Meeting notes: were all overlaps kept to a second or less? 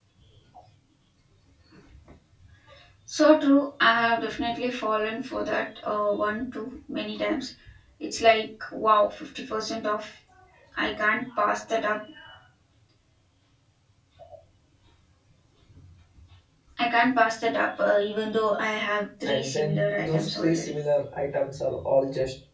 No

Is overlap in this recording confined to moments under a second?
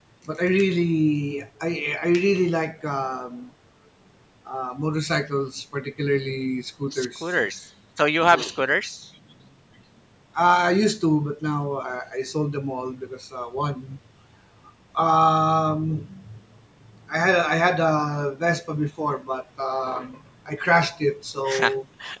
Yes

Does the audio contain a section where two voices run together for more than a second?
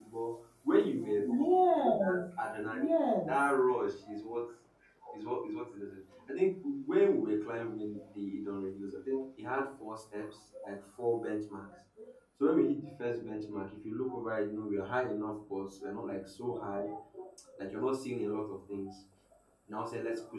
No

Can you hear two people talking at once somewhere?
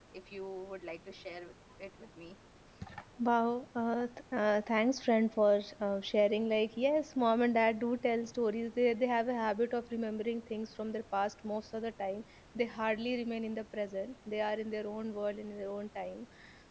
No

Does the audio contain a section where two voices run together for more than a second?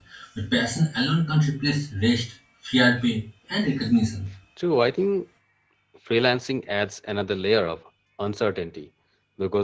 No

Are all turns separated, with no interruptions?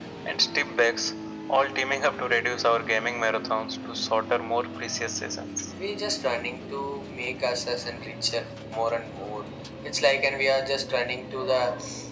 Yes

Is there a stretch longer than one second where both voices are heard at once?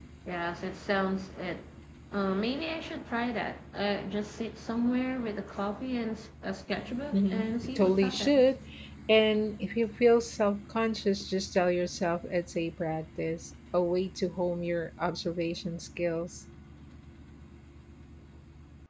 Yes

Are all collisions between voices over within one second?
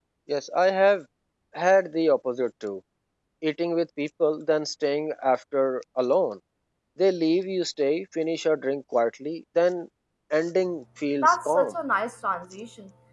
Yes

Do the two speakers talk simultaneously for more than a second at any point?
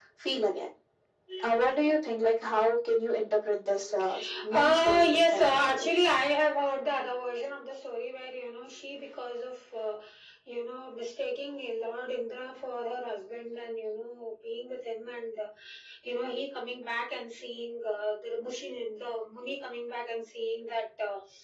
Yes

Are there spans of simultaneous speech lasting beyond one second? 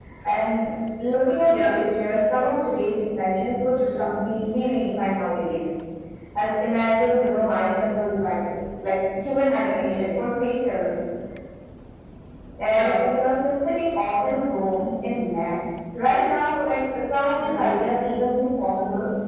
No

